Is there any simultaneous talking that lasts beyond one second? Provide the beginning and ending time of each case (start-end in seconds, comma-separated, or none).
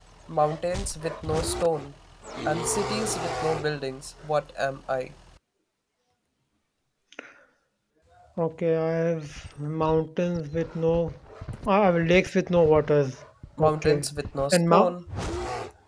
none